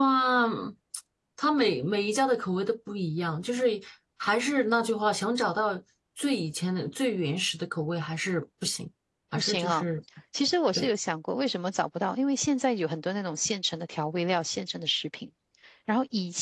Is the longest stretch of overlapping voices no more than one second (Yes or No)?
Yes